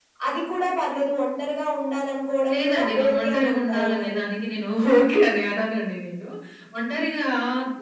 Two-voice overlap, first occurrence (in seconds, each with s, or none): 2.5 s